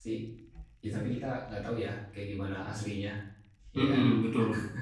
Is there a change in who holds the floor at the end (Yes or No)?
Yes